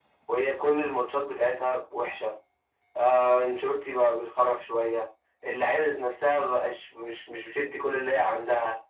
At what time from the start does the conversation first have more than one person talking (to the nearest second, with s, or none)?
none